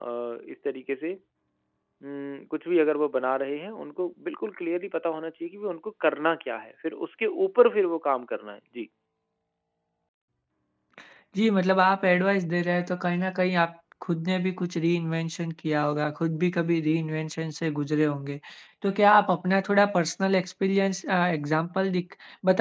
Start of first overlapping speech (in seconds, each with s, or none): none